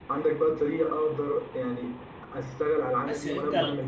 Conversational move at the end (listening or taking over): taking over